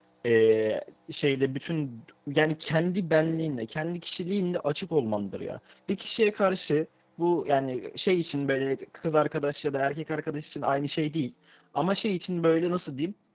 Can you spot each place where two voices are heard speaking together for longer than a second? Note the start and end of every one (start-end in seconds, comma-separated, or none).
none